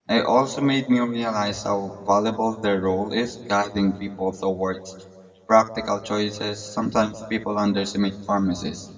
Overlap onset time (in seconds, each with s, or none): none